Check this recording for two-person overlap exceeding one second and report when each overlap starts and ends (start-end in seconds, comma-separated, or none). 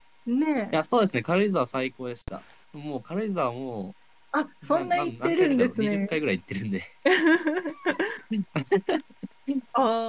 4.7-6.2